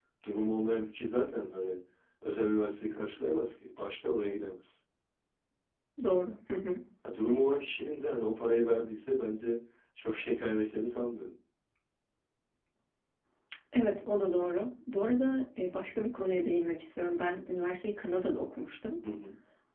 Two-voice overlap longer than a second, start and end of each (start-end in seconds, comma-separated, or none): none